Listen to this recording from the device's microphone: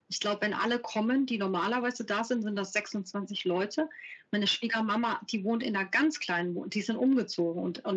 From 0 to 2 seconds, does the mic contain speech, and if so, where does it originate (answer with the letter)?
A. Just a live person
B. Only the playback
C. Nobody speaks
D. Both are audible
B